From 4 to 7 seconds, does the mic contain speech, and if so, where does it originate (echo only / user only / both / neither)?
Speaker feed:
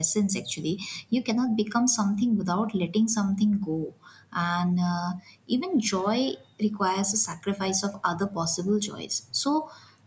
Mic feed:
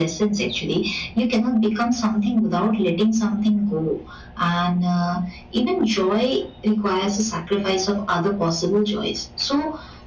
echo only